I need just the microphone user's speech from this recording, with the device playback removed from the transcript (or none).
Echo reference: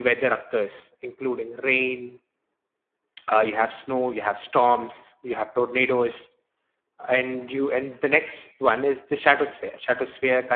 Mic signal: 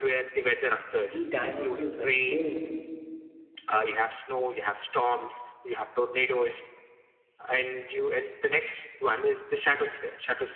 the dinosaurs were killed